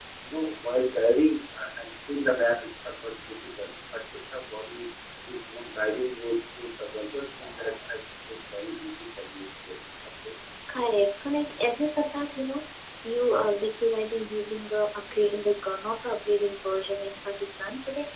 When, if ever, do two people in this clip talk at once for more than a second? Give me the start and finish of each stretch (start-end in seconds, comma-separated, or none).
none